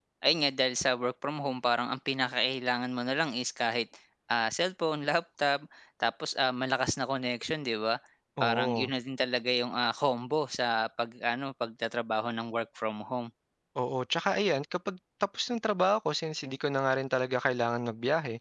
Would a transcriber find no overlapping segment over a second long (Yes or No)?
Yes